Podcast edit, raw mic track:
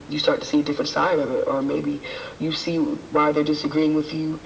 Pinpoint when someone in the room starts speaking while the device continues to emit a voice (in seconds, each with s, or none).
none